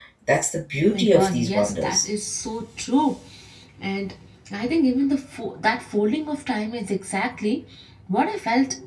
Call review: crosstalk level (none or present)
present